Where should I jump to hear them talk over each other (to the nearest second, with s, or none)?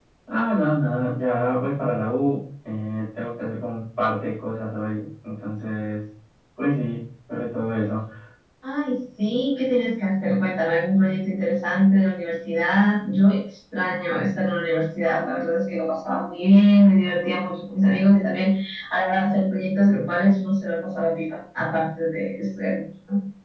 none